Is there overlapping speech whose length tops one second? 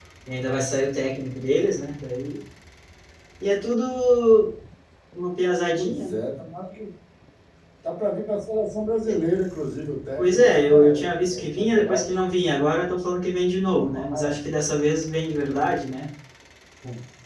Yes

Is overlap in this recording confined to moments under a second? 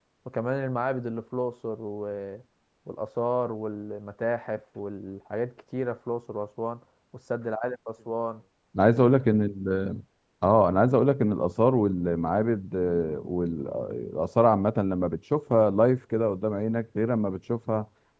Yes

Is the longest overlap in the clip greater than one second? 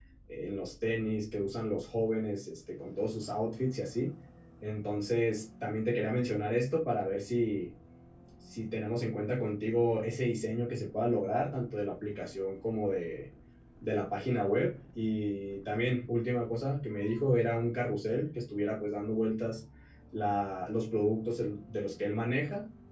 No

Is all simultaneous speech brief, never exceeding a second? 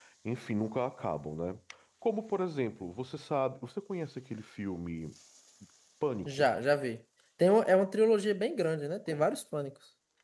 Yes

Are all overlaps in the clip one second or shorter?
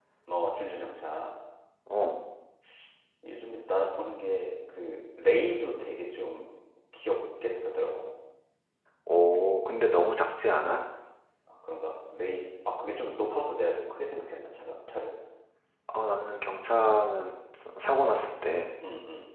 Yes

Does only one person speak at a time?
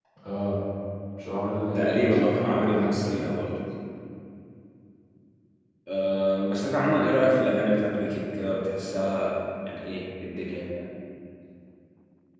No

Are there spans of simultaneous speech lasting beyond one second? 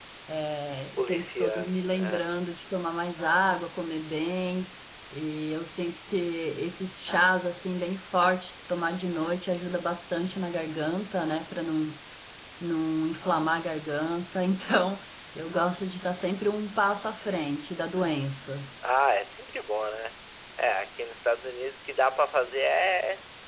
Yes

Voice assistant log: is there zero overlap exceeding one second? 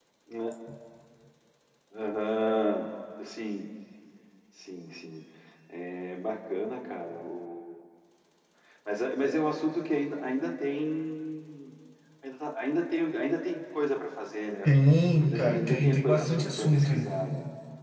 No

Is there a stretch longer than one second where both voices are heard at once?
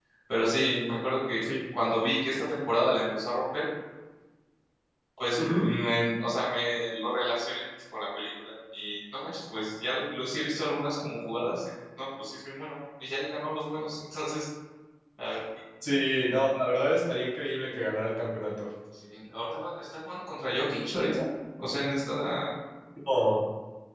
No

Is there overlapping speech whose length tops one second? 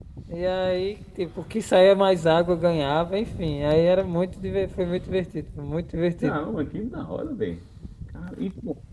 No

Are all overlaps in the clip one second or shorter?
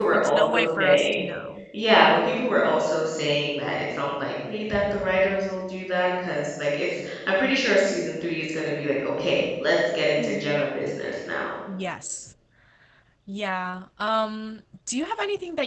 No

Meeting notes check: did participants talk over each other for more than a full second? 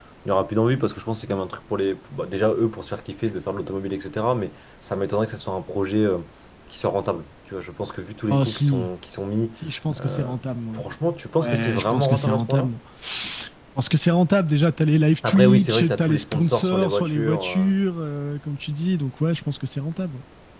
Yes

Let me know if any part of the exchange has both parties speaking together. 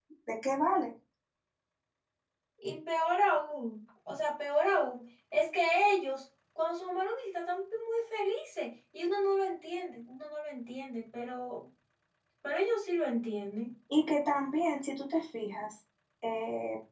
No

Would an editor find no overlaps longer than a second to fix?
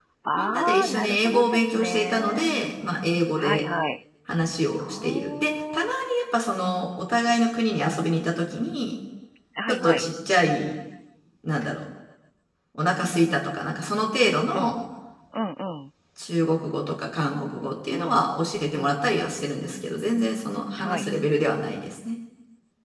No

